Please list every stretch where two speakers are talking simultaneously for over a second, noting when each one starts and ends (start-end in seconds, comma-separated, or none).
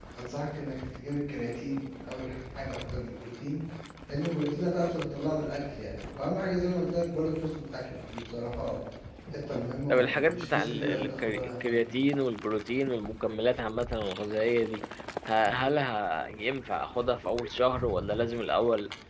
9.9-11.9